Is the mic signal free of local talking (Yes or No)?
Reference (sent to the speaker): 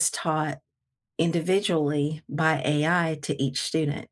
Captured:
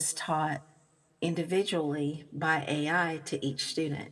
Yes